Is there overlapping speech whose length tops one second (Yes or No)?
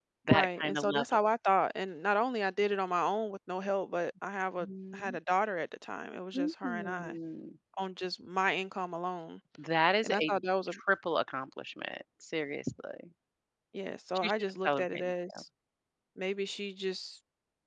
Yes